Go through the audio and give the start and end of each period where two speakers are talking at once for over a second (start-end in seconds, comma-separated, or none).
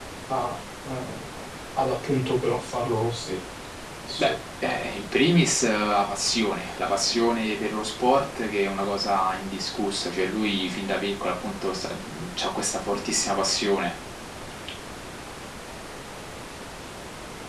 none